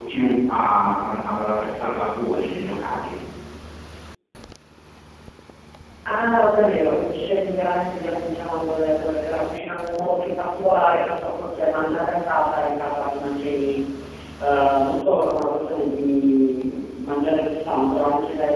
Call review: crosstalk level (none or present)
none